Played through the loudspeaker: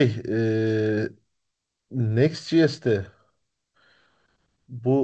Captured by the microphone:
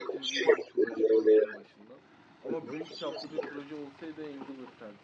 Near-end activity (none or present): present